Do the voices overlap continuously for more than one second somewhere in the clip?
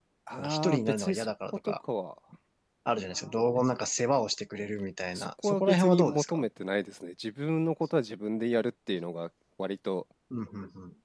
Yes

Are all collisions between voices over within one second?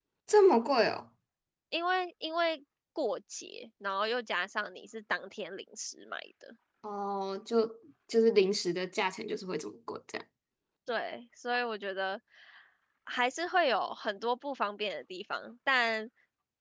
Yes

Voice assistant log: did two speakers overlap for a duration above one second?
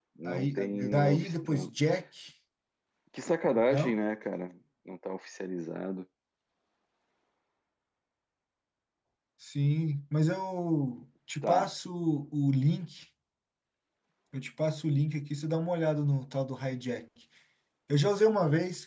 Yes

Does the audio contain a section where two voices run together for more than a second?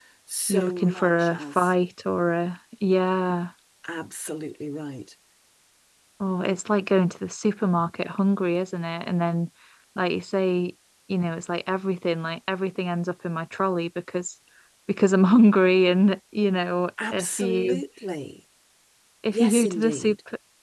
Yes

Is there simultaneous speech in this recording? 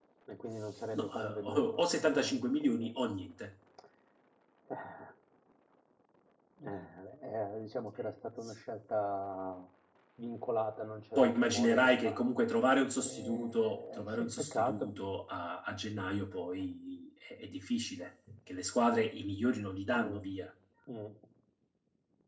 Yes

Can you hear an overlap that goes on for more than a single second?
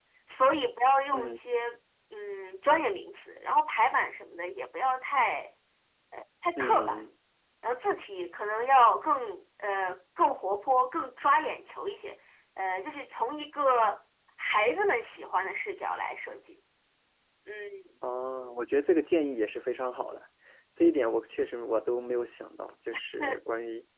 No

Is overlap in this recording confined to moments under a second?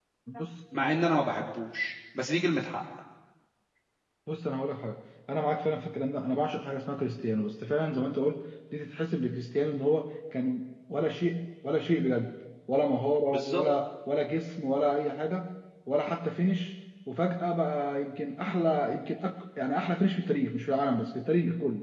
Yes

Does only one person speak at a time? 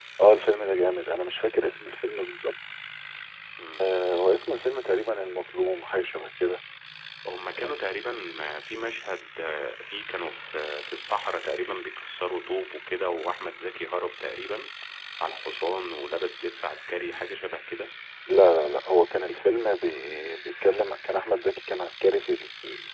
Yes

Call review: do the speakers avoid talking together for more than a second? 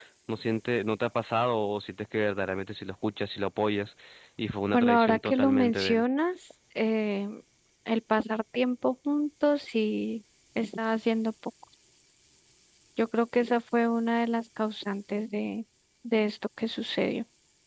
No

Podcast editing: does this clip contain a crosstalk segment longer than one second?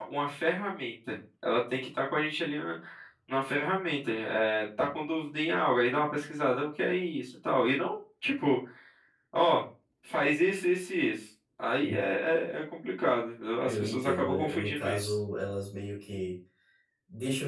Yes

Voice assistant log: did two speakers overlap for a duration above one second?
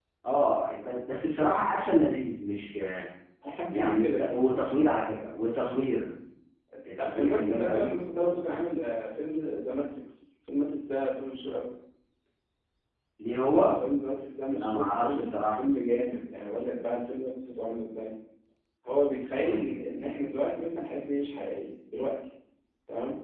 Yes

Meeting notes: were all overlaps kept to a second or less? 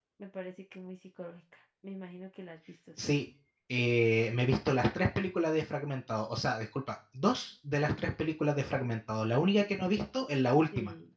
Yes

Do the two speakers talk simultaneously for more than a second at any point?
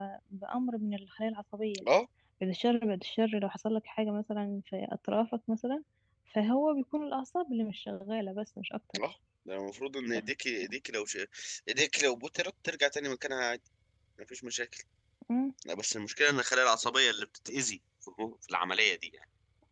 No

